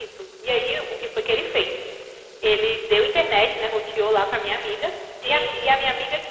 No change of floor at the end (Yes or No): Yes